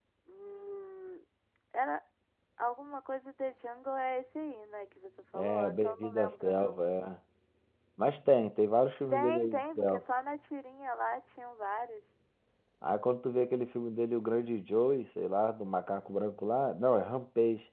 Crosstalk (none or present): present